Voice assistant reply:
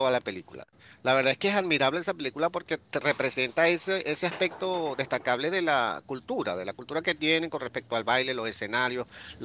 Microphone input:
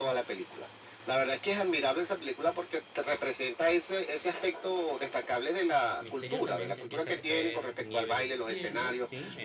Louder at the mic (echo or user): echo